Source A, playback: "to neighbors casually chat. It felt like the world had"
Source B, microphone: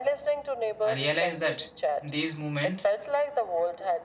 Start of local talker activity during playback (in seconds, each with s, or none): 0.8 s